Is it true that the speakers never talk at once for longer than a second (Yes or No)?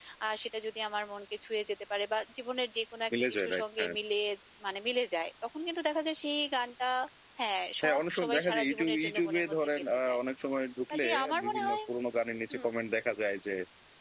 No